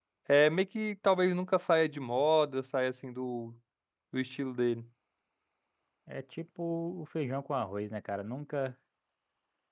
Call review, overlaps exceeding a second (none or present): none